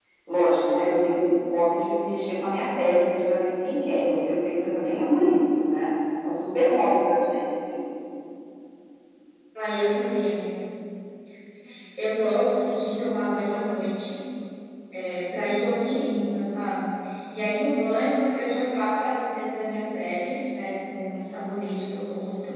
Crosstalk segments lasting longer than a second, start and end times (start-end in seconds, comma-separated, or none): none